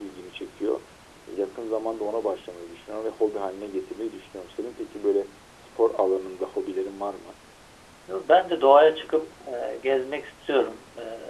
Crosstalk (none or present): none